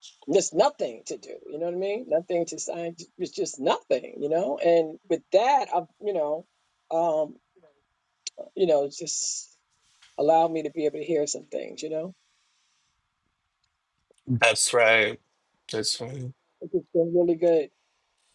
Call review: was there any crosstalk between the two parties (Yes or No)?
No